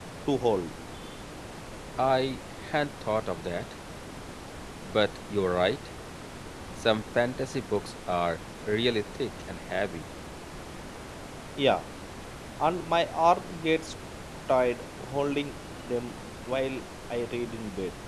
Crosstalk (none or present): none